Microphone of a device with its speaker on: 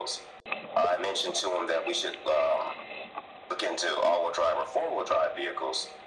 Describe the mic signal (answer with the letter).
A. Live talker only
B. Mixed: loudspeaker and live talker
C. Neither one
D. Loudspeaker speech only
D